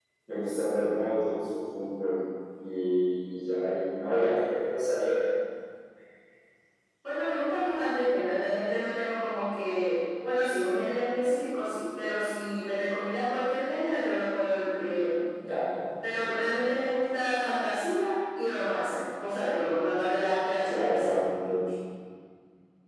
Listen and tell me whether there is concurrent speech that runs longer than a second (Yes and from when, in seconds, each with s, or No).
No